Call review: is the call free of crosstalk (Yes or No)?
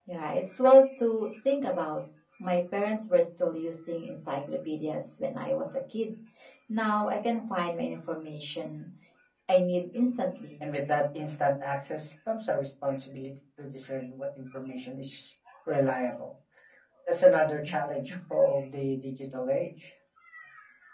Yes